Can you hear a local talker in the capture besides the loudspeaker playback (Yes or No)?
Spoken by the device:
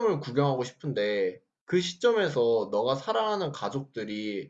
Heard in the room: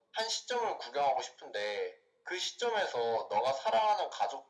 No